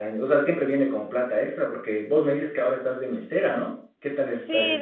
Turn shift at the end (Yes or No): Yes